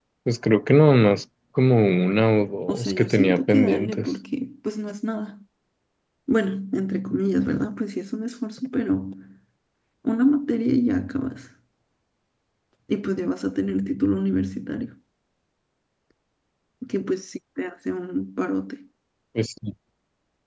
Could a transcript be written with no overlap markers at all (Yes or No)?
No